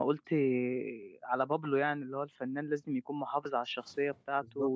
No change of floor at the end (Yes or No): Yes